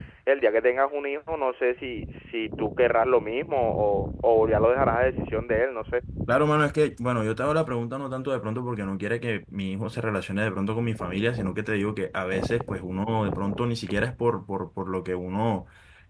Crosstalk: none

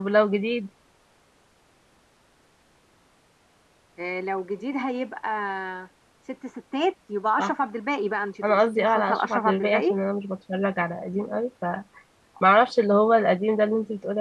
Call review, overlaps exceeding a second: present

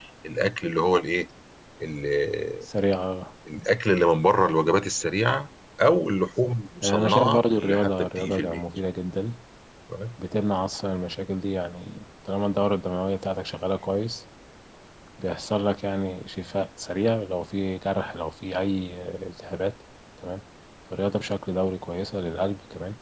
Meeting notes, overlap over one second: present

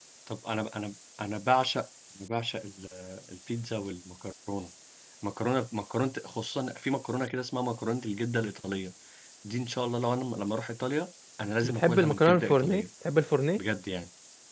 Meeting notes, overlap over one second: present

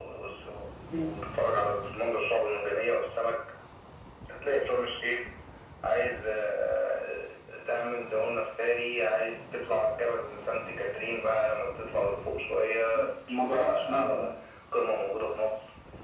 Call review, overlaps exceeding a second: present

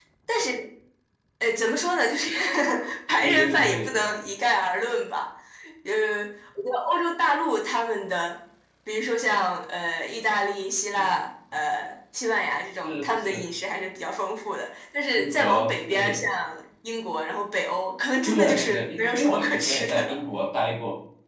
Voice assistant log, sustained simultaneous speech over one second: present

